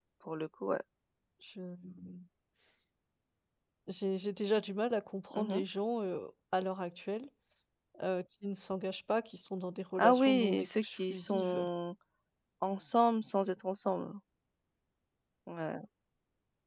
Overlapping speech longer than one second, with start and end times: 10.0-11.6

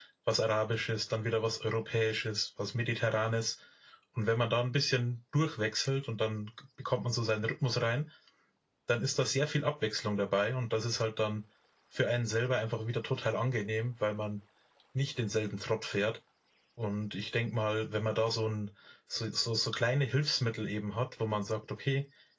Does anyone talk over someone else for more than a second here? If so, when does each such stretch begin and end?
none

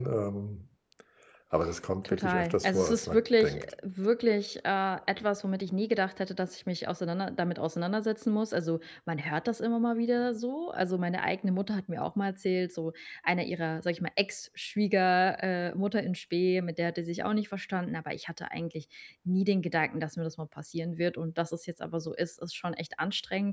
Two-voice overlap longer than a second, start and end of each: 2.0-3.7

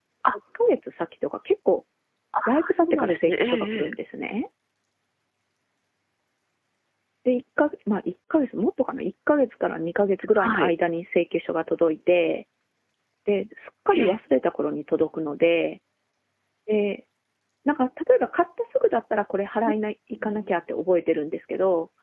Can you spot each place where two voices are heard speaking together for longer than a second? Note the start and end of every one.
2.7-3.9

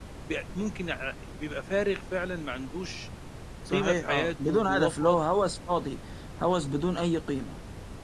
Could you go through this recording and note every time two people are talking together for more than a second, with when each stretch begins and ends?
3.7-5.2

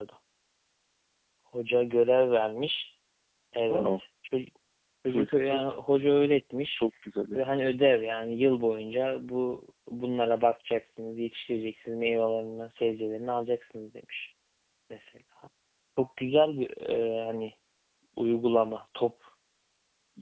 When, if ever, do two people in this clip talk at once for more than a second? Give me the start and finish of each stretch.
none

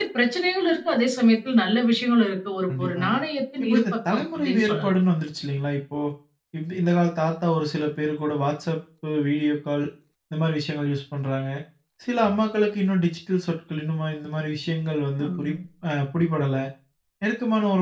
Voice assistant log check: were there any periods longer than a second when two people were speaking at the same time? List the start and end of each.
3.6-4.9

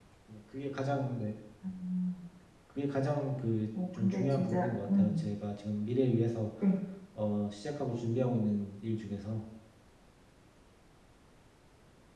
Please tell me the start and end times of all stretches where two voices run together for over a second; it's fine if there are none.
3.9-5.2

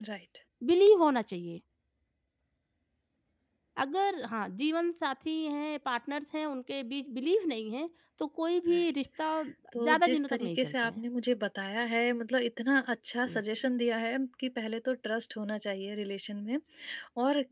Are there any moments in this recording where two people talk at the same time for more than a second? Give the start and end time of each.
9.8-11.0

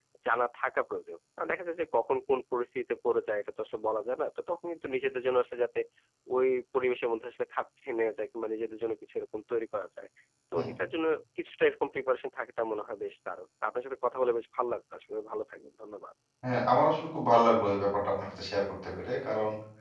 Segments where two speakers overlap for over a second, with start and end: none

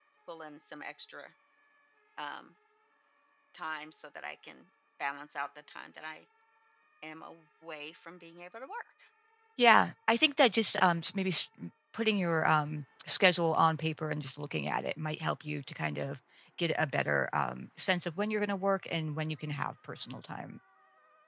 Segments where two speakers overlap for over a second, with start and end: none

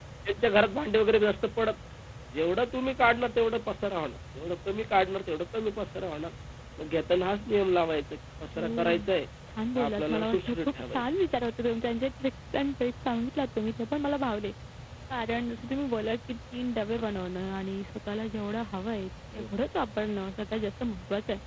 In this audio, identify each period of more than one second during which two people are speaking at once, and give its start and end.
9.8-11.0

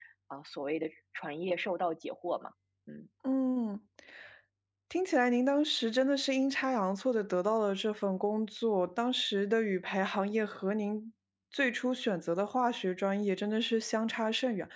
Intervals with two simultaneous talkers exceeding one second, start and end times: none

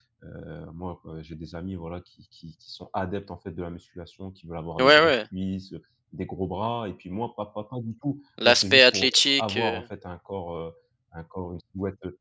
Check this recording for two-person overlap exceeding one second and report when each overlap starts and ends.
8.4-9.8

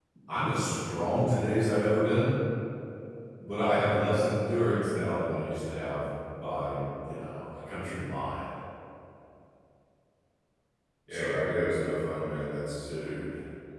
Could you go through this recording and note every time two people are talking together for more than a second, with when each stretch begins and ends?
none

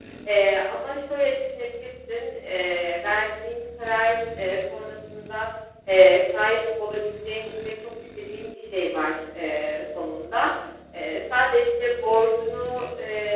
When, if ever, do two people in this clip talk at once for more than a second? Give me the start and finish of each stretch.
none

